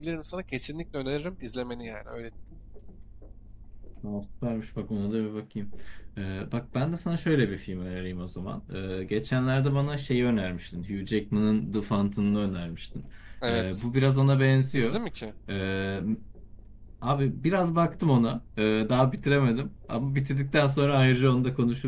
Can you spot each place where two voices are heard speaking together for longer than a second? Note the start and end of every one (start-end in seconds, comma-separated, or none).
none